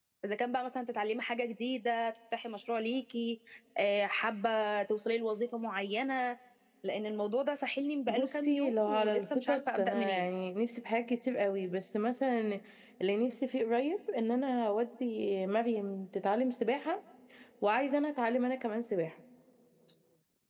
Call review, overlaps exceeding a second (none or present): present